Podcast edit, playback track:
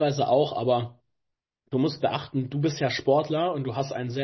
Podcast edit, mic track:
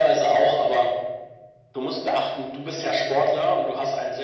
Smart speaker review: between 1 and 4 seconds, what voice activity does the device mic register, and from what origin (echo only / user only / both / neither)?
echo only